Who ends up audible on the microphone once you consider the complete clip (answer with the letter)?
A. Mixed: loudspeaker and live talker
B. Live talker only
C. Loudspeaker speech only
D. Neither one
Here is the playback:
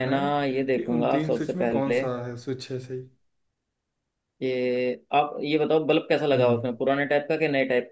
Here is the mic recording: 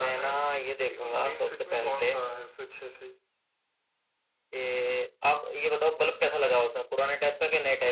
C